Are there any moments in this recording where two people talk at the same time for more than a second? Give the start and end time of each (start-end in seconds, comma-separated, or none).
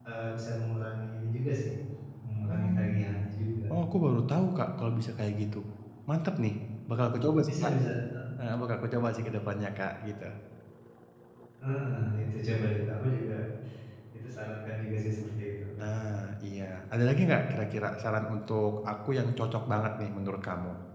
none